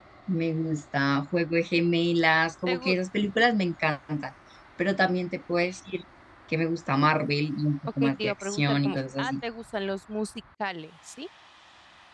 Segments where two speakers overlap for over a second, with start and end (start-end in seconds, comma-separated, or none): 8.0-9.3